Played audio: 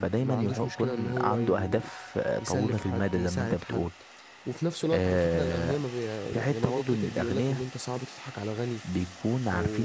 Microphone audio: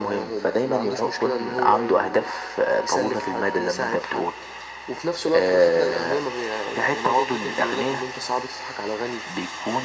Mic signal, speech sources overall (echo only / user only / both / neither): echo only